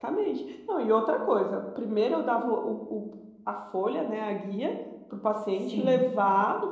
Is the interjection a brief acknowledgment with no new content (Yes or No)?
Yes